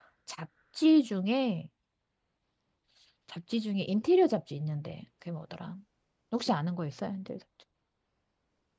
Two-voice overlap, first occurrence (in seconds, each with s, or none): none